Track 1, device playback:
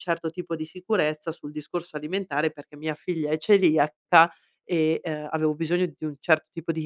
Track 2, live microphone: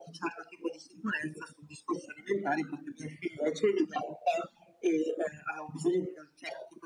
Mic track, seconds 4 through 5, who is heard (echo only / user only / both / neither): echo only